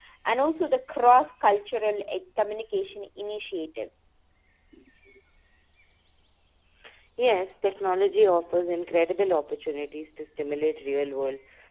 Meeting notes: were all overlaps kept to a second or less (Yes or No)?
Yes